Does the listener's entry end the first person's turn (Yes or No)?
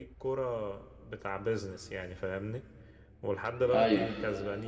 No